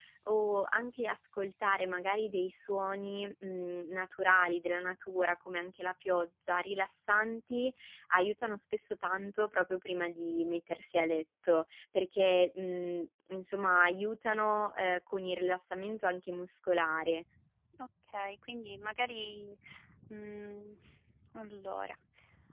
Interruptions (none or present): none